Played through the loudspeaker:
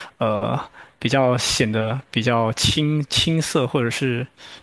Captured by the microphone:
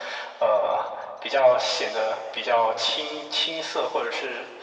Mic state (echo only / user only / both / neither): echo only